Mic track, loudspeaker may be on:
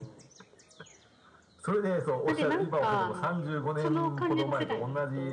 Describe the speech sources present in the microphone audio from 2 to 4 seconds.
both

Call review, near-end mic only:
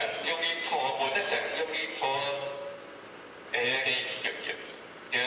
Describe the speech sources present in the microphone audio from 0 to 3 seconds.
echo only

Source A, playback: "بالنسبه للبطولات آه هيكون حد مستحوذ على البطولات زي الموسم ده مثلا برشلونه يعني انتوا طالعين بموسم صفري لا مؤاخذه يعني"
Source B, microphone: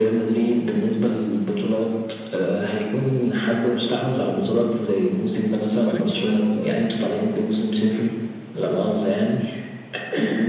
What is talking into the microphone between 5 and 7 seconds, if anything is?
both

